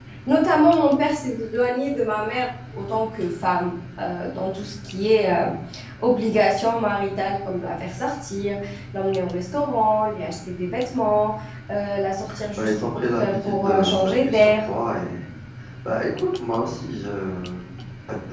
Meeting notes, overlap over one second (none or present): present